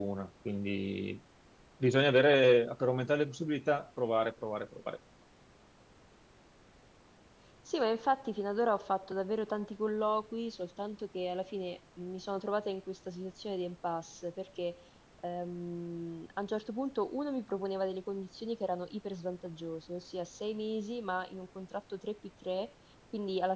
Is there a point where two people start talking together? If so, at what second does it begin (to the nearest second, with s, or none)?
none